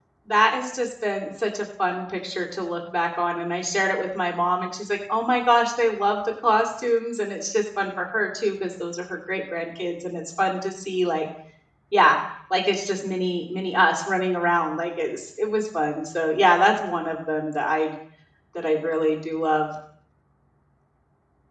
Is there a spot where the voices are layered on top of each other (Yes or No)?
No